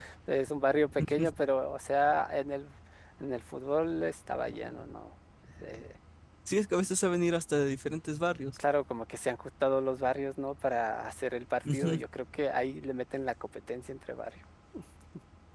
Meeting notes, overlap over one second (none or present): none